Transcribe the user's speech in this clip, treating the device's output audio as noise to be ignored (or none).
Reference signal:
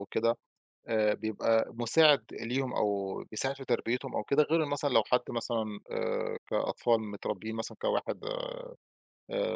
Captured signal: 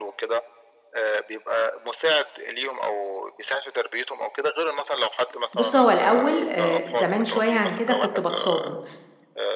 بُص، هو الأول آآ زمان شوية عن كده كنت باتصادم